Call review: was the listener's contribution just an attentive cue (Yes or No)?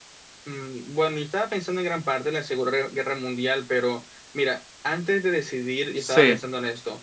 Yes